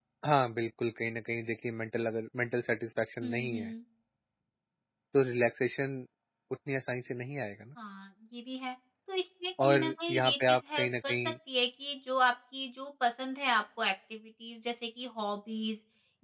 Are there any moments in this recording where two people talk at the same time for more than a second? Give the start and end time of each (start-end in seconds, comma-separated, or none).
9.6-11.3